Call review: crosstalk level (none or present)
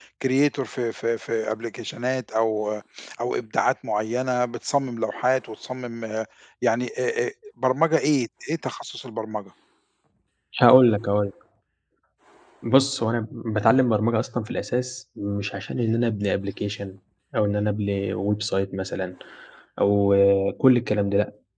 none